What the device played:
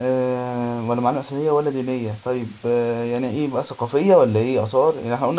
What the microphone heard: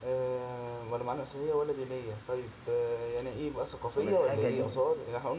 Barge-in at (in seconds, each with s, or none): 4.0 s